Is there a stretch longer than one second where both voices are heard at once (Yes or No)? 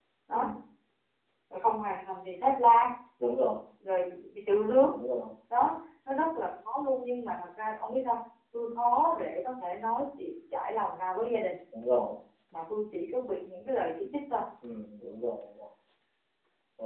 No